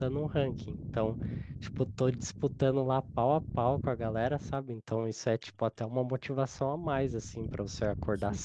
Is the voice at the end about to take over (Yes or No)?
No